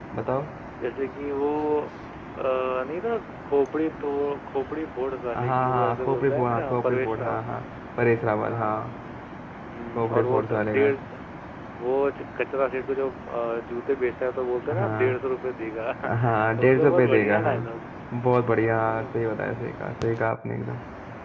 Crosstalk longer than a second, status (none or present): present